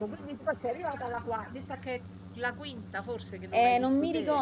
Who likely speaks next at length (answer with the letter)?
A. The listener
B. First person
A